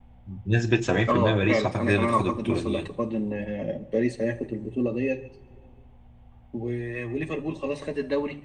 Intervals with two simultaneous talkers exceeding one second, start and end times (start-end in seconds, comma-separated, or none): 1.1-2.9